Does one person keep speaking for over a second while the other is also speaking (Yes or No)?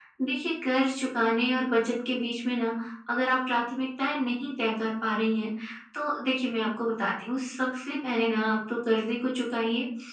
No